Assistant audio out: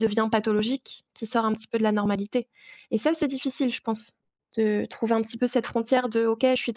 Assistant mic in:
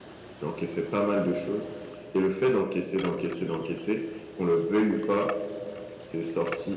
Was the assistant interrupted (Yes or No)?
Yes